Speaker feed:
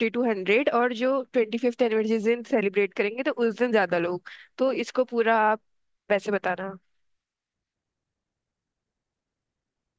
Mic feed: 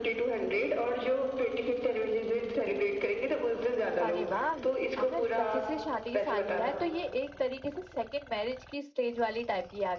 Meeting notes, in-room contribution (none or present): present